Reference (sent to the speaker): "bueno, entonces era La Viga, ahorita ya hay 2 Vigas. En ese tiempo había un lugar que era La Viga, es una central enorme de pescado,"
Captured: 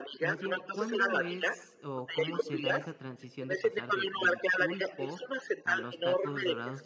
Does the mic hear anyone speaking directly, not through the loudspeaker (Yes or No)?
Yes